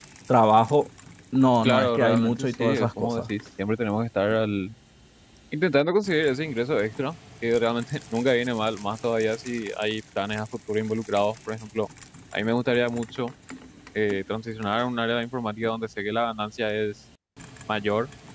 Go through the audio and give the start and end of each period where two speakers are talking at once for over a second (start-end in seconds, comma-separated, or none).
1.6-3.2